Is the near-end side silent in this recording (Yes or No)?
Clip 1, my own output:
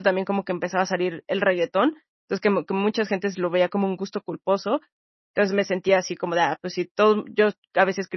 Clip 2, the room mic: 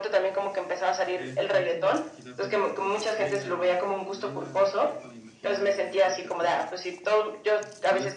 No